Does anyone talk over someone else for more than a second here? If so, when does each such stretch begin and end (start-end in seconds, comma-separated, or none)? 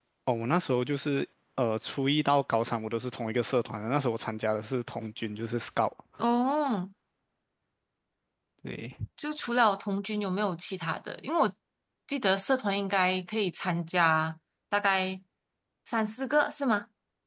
none